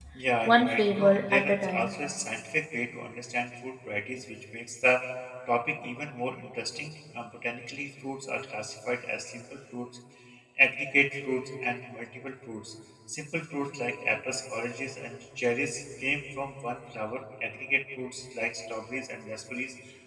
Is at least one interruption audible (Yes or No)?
Yes